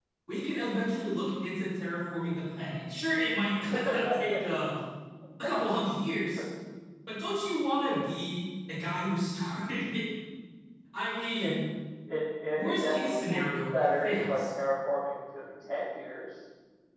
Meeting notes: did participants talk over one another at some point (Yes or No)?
Yes